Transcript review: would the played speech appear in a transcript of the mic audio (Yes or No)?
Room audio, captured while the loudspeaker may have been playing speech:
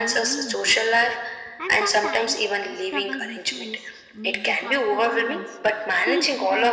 Yes